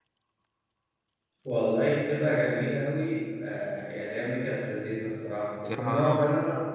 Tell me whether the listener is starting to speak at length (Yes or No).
No